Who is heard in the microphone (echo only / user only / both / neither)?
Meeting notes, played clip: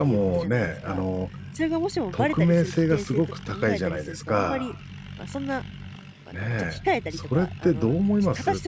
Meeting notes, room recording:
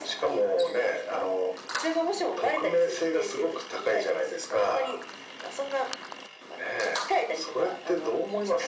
echo only